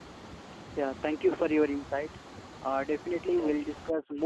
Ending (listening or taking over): listening